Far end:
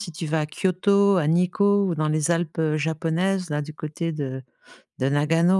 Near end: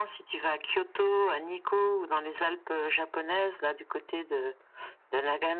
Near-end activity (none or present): none